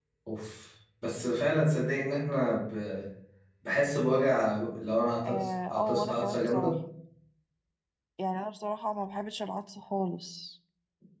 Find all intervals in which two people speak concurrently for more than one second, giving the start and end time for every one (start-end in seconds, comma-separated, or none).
5.2-6.8